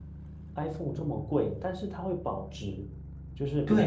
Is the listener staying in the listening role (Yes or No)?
No